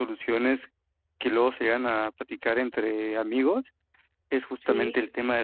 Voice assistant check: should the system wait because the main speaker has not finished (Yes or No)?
Yes